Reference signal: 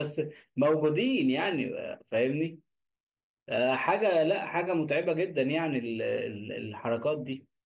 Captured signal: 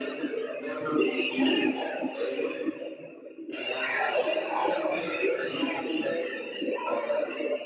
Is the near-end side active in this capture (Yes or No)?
No